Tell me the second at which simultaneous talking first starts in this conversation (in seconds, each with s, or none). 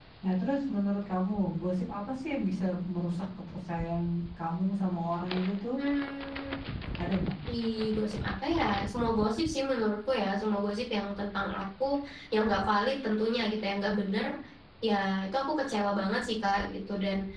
none